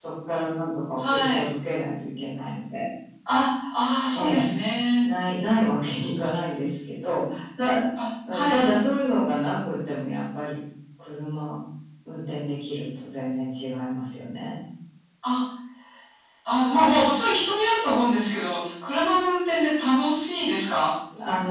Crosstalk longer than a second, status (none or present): none